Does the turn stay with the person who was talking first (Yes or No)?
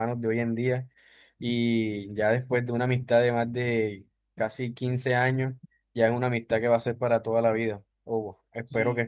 No